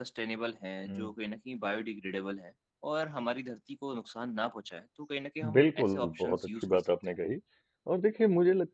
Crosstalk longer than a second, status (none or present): present